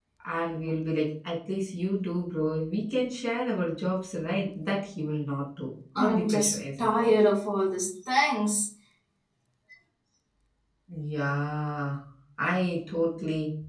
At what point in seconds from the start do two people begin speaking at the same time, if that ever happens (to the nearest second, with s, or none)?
6 s